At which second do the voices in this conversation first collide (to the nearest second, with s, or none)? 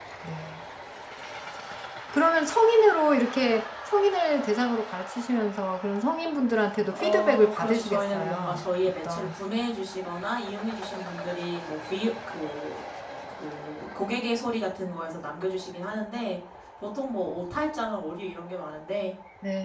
7 s